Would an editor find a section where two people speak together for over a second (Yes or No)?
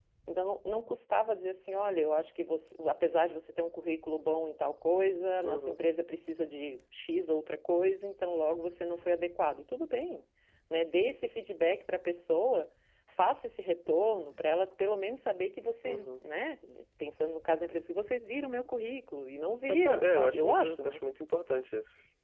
Yes